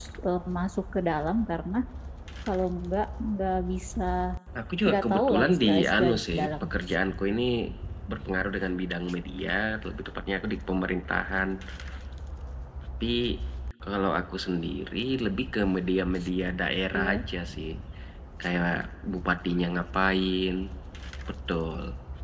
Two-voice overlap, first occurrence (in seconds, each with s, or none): 4.9 s